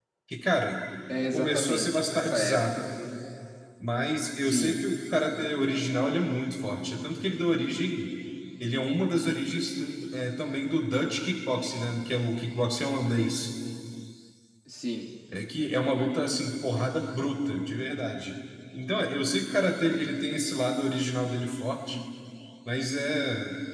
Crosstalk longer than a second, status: present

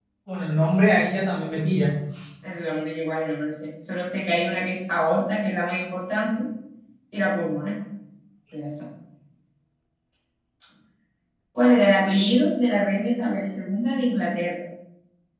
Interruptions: none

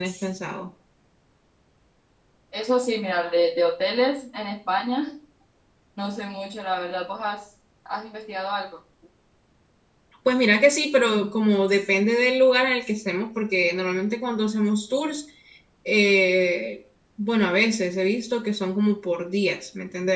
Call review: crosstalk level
none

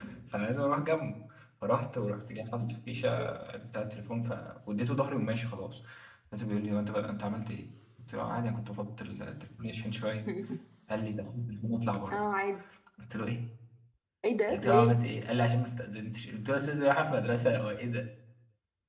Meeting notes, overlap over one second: none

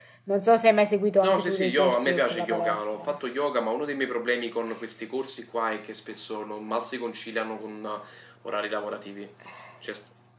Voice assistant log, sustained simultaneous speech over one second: present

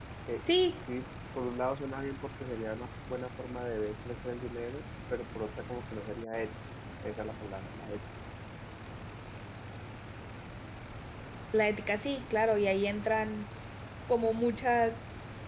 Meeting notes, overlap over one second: none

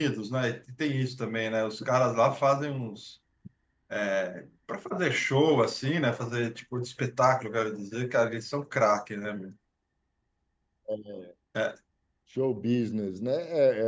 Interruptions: none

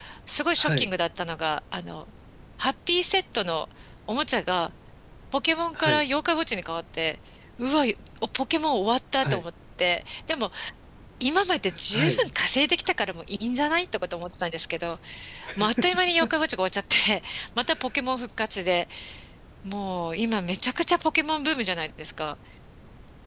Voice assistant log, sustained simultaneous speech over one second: none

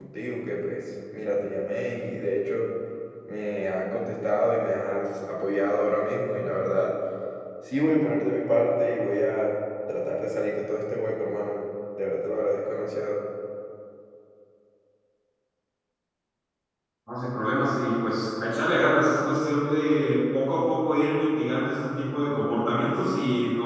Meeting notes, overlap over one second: none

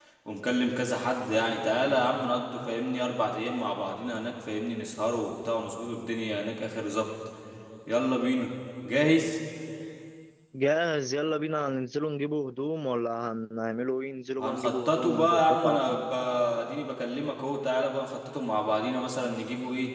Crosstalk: present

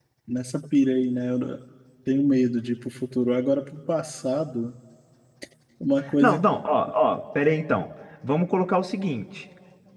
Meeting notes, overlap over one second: none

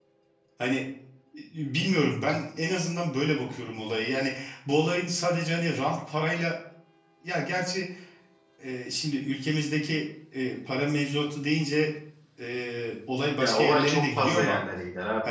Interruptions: present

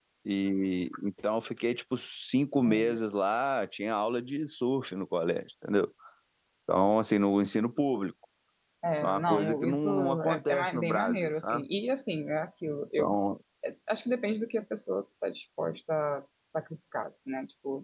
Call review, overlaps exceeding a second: present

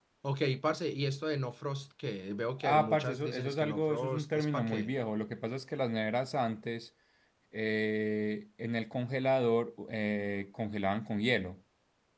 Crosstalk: present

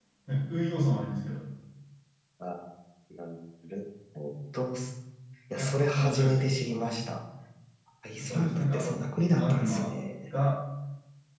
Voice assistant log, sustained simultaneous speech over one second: present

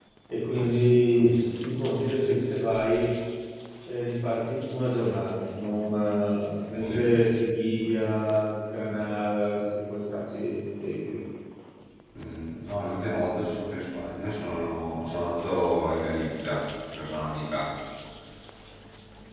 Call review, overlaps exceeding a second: none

